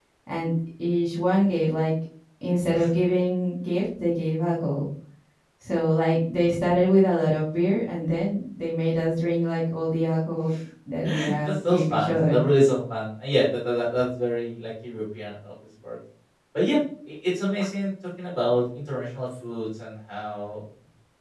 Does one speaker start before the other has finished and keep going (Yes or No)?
Yes